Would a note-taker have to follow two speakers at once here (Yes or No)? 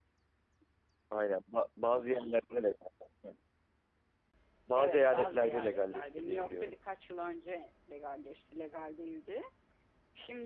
Yes